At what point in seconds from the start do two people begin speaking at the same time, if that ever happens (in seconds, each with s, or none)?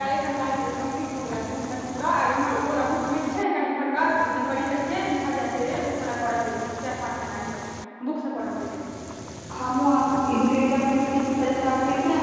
none